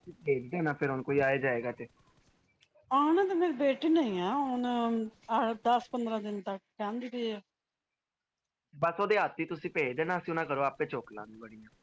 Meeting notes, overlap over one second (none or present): none